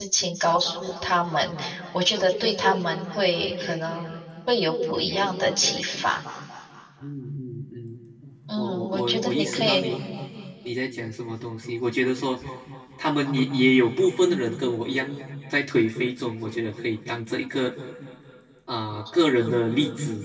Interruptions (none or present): present